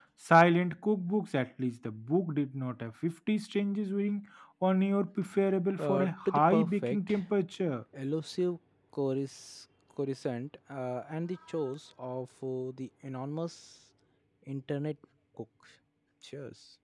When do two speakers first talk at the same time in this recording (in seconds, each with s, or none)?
5.8 s